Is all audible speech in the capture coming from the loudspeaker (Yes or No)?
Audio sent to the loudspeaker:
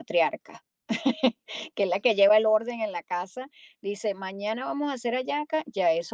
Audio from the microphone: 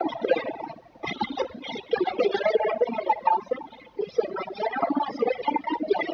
Yes